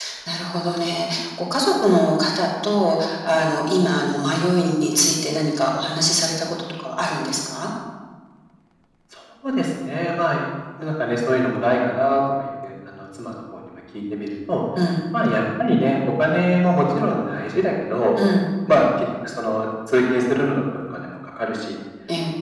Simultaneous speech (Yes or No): No